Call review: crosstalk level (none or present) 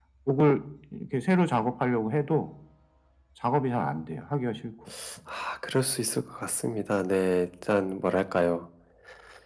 none